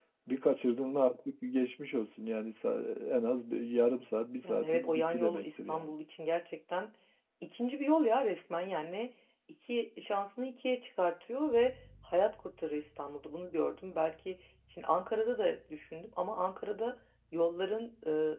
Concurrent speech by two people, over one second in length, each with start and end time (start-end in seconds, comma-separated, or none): 4.4-5.9